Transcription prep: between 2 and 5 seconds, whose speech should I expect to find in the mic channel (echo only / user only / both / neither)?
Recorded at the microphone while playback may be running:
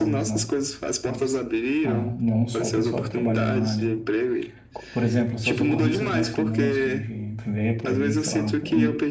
both